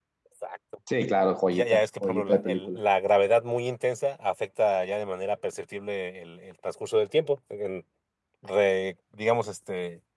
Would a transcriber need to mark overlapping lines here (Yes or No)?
Yes